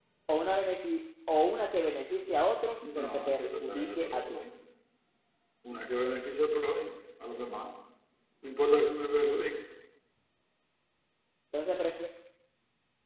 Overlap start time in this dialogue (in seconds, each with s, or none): 2.8 s